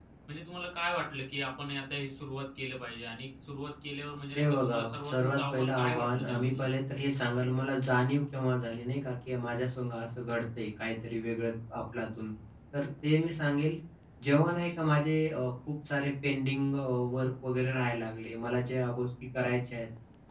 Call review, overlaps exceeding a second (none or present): present